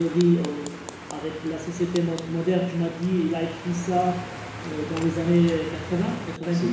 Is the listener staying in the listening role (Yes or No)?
No